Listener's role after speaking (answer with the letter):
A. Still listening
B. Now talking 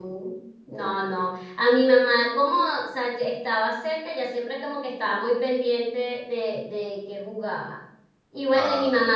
A